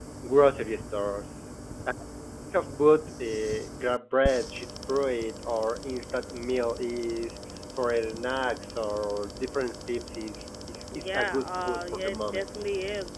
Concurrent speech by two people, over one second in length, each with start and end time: 11.0-12.5

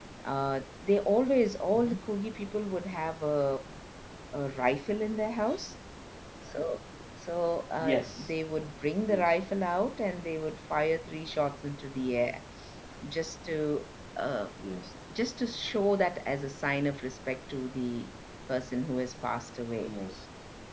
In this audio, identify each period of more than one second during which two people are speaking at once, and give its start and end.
none

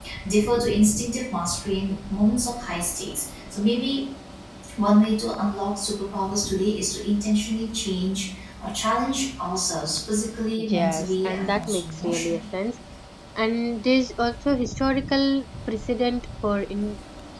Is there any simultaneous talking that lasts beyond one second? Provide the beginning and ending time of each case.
10.7-12.4

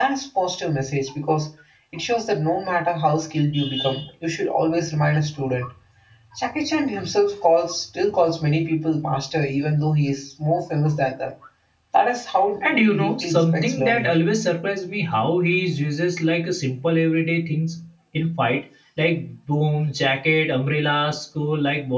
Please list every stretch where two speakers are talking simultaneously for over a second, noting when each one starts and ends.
12.8-14.1

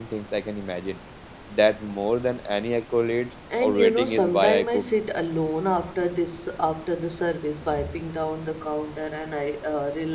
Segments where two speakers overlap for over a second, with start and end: 3.6-4.8

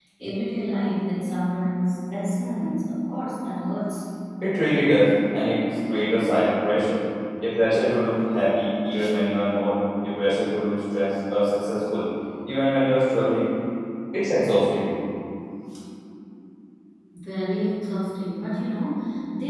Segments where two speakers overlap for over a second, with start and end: none

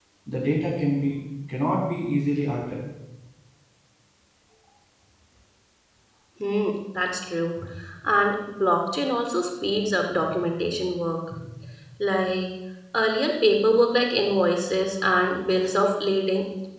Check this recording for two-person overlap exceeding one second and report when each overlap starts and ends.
none

